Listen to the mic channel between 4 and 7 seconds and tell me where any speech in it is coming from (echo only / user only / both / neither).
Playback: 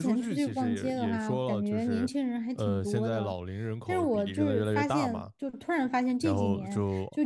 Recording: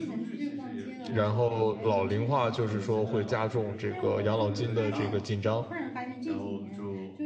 both